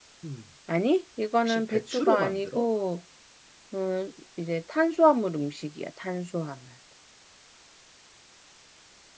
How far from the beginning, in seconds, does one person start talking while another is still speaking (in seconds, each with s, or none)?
1.4 s